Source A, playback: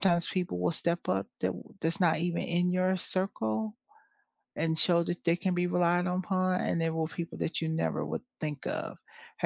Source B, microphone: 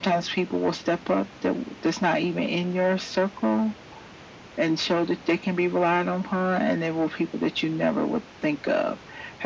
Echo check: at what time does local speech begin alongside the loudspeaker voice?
none

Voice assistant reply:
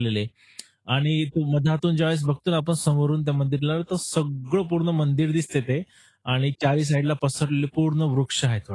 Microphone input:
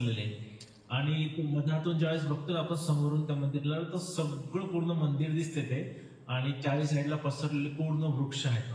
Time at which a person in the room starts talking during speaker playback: none

